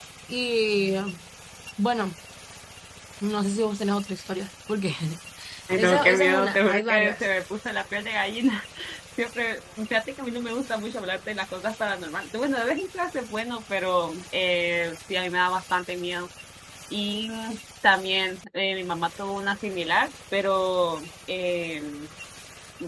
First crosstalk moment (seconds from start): 6 s

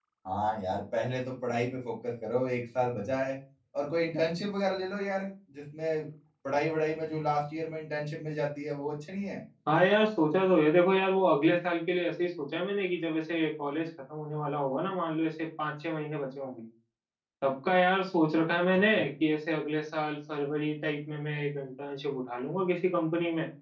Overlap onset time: none

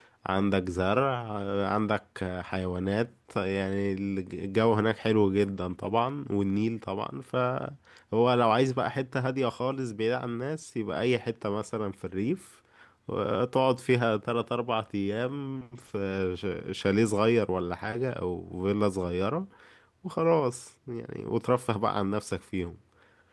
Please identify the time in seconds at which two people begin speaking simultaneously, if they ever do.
none

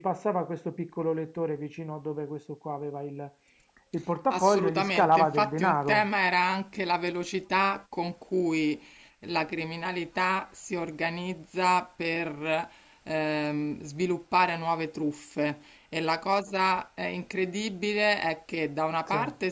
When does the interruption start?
4 s

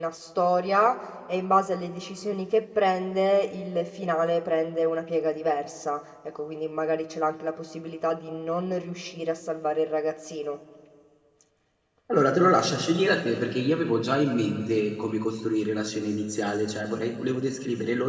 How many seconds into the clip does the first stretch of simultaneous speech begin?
none

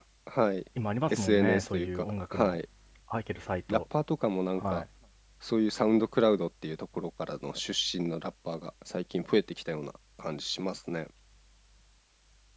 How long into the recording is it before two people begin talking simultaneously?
1 s

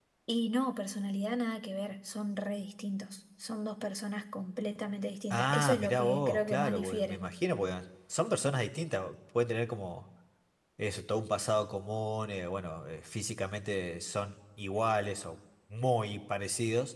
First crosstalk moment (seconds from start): 5 s

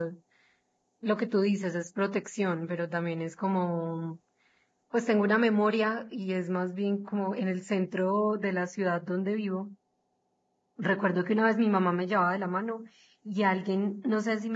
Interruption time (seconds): none

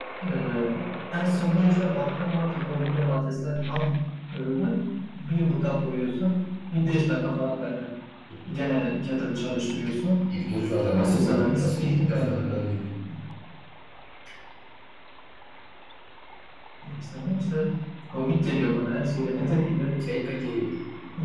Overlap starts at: 11 s

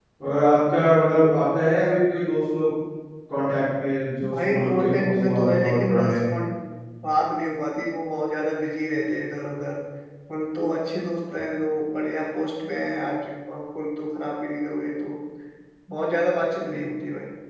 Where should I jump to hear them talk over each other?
4 s

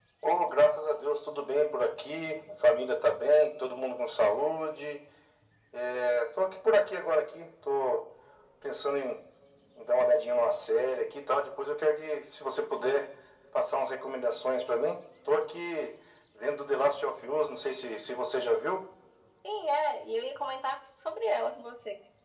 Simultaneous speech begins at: none

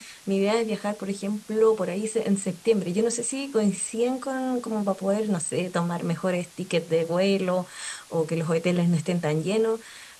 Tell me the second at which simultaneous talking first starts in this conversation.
none

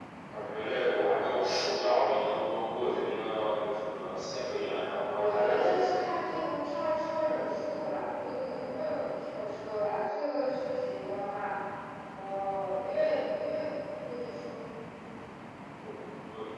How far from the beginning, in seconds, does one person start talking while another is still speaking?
5 s

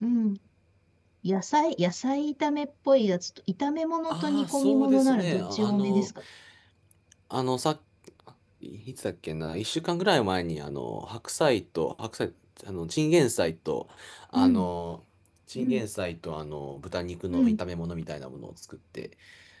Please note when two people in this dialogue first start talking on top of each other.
4 s

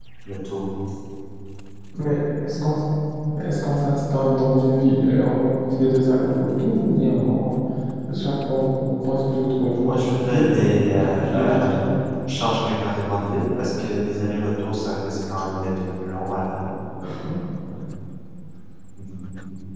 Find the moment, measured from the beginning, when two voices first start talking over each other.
10 s

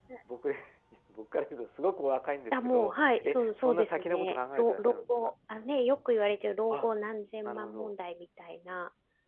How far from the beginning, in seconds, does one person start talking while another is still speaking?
3 s

